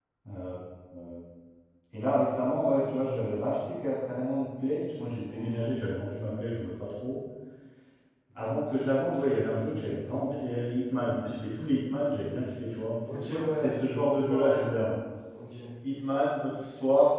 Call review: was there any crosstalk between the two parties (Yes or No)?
Yes